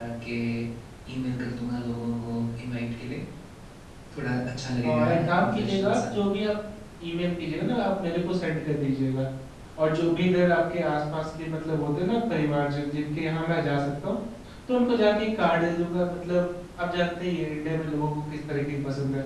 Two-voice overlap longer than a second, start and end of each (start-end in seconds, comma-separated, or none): 4.8-6.1